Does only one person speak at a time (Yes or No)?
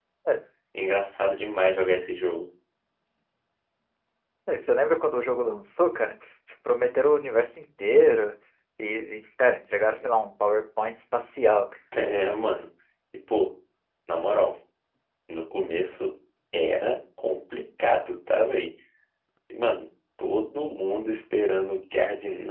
Yes